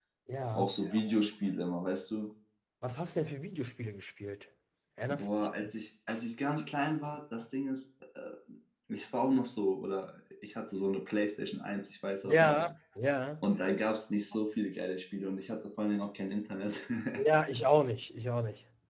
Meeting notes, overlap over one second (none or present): none